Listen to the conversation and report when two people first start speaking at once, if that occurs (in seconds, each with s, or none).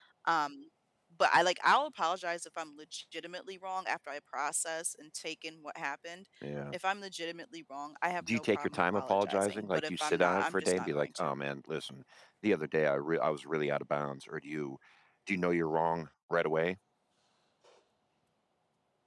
8.2 s